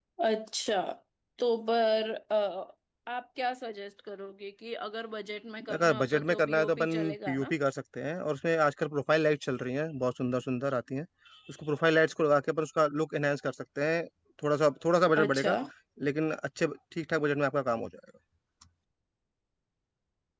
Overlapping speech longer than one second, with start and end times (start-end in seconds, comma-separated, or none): 5.7-7.5